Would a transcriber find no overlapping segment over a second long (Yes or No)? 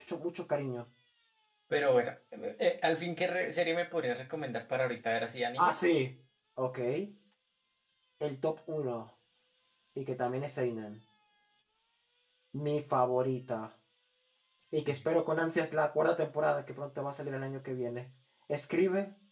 Yes